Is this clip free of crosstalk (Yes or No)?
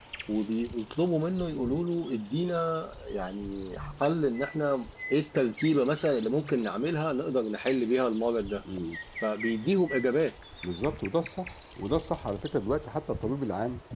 Yes